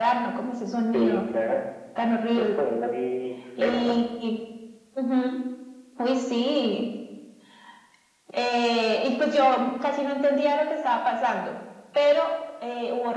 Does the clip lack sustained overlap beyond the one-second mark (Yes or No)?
Yes